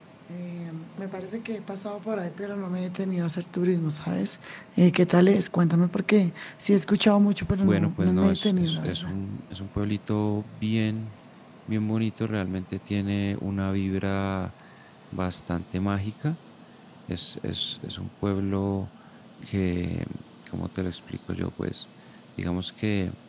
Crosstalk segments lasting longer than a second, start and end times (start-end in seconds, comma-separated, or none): 7.6-9.2